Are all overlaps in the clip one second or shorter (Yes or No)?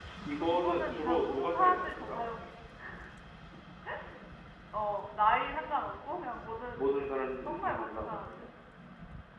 No